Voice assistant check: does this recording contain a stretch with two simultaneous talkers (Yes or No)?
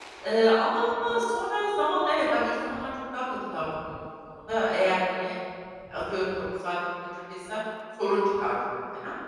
No